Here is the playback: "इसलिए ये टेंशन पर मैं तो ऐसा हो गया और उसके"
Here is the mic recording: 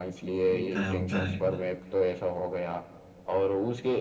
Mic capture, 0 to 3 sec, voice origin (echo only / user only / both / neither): both